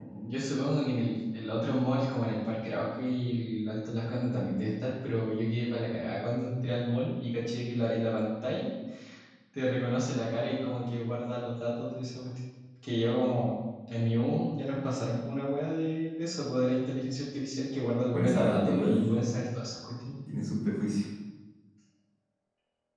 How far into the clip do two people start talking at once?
18.1 s

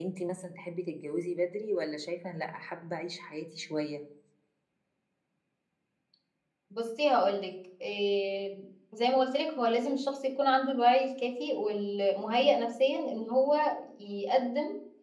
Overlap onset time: none

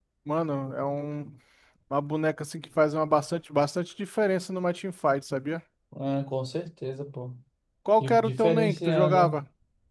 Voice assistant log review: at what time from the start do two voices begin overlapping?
8.0 s

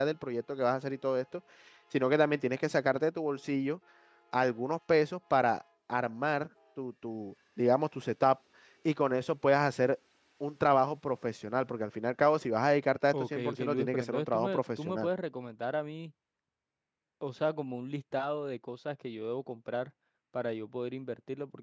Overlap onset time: 13.1 s

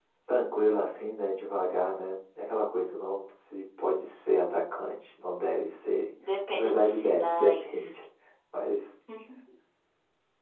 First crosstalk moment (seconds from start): 6.5 s

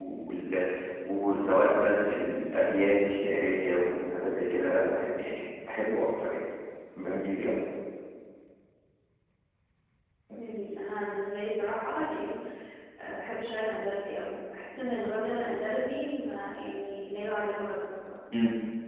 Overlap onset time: none

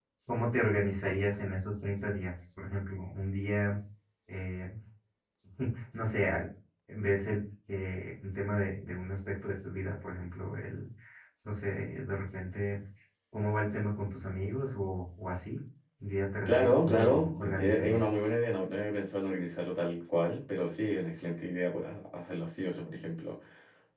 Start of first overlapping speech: 16.5 s

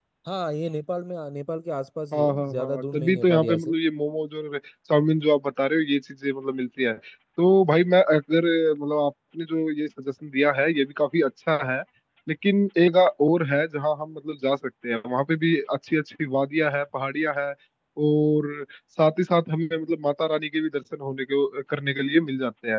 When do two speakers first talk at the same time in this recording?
2.1 s

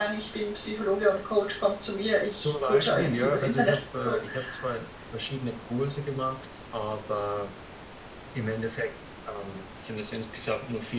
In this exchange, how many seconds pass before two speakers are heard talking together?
2.4 s

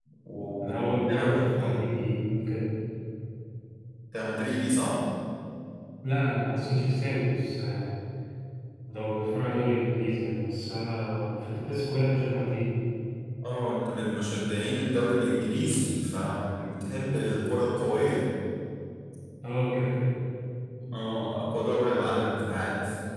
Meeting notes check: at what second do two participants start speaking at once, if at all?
0.6 s

